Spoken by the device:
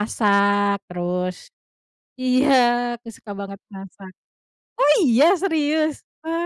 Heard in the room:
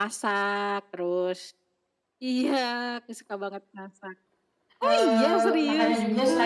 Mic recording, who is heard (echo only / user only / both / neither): both